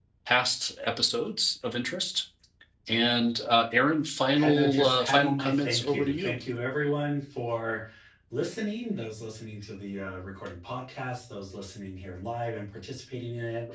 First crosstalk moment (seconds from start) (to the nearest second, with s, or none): 4 s